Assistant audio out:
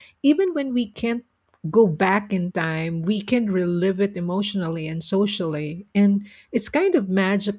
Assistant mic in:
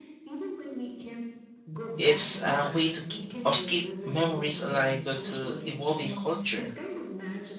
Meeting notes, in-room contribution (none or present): present